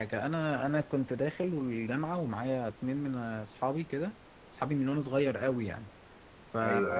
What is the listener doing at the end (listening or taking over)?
listening